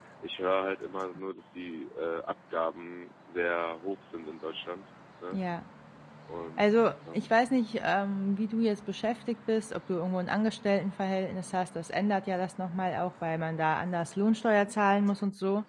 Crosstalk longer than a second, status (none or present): none